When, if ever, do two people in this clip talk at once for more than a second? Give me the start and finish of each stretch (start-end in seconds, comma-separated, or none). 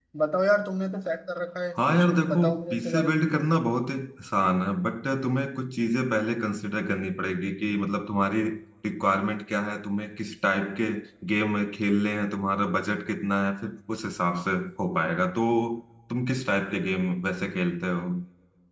1.8-3.3